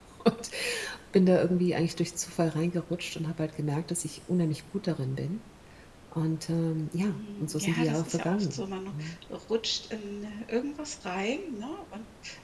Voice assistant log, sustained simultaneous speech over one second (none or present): present